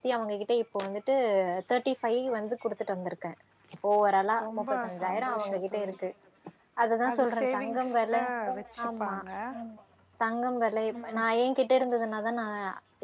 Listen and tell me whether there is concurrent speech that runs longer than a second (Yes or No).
Yes